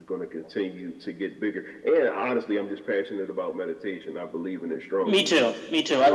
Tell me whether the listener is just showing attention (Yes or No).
No